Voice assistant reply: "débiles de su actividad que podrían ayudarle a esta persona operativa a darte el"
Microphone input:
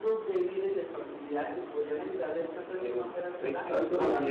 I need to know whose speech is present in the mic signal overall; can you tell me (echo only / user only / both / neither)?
both